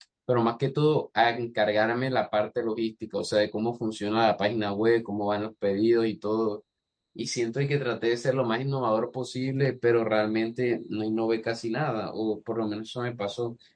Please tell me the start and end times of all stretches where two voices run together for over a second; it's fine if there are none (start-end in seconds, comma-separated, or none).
none